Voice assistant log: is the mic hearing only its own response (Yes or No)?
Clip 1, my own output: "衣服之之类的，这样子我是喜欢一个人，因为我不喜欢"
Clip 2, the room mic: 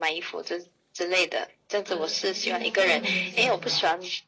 No